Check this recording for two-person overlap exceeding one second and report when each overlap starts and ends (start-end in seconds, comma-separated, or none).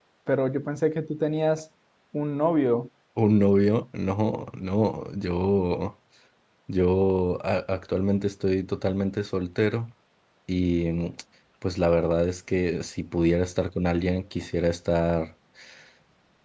none